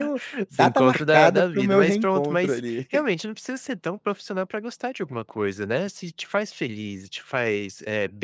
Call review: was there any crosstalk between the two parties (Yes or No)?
Yes